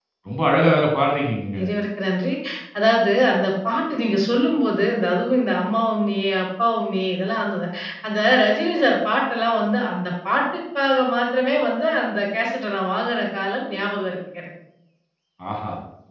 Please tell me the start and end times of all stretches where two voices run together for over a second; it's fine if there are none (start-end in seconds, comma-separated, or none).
none